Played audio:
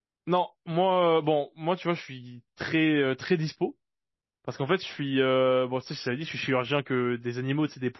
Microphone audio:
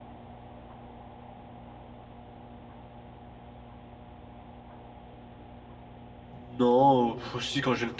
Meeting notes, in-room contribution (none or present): present